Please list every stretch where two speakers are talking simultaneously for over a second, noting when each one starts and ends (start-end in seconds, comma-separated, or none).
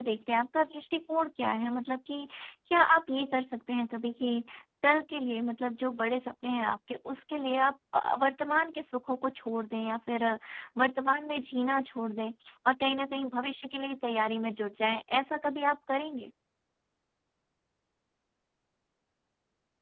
none